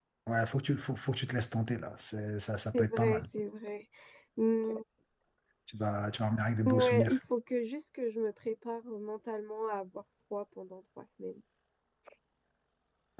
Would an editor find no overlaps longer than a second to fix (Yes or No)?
Yes